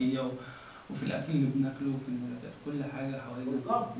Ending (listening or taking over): taking over